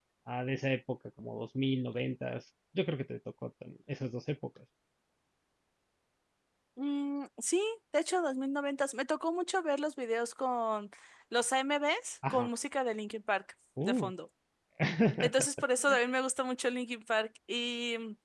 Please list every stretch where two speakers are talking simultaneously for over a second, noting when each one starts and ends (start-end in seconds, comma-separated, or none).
none